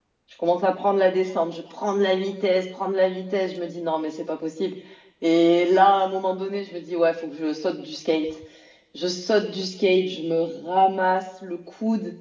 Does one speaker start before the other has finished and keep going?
No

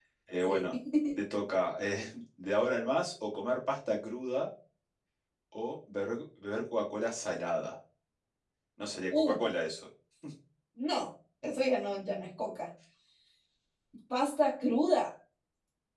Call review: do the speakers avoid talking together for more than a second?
Yes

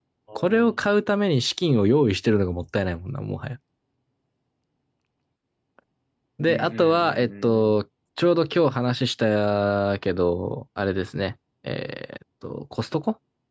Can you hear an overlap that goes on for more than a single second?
Yes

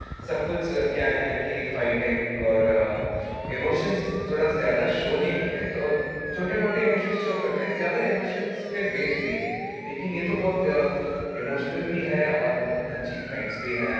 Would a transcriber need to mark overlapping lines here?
No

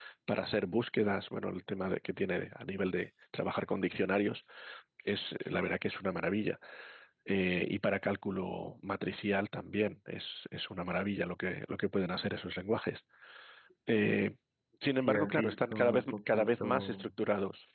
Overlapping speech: Yes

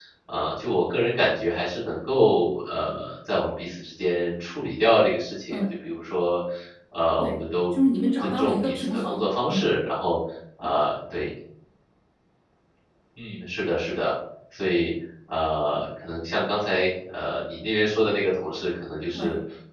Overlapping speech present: Yes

